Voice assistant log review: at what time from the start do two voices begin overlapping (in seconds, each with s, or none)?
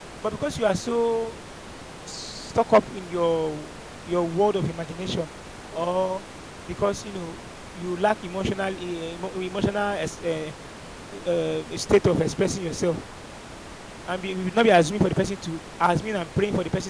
none